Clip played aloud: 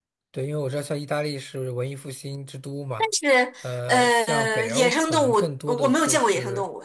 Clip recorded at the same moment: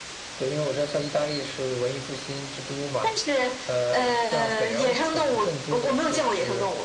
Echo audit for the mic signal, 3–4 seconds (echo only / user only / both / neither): echo only